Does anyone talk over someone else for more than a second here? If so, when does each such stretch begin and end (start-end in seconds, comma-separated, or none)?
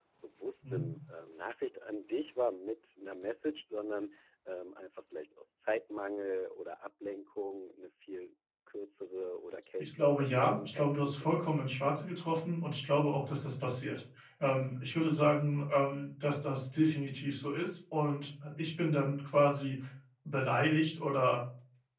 9.8-11.3